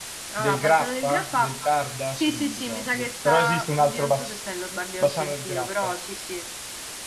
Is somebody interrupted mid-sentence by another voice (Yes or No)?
Yes